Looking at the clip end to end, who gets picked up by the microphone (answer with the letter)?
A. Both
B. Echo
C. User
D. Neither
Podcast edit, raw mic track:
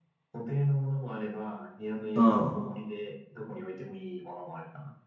A